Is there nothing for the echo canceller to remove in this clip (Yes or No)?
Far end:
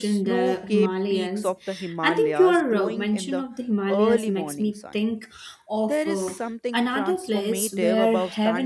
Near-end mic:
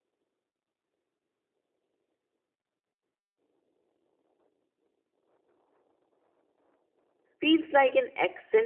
Yes